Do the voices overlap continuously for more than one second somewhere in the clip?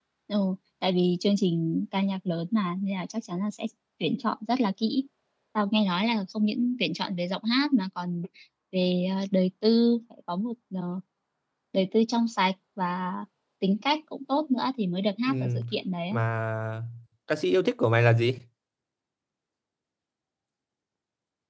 No

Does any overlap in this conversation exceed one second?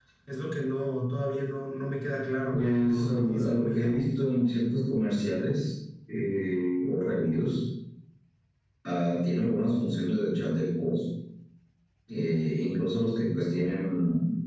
Yes, from 2.5 s

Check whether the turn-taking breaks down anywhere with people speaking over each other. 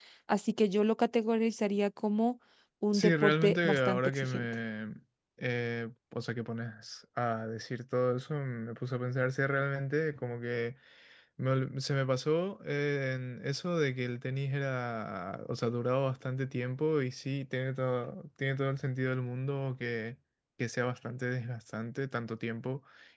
Yes, from 2.9 s

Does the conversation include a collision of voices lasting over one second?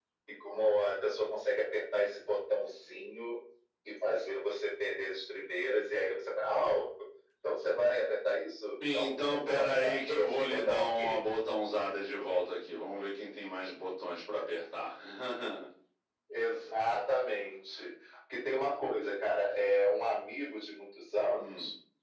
Yes, from 8.9 s

